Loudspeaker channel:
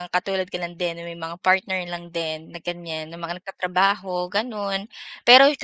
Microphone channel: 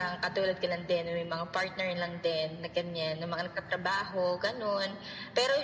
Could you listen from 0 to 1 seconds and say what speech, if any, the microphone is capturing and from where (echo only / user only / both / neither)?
echo only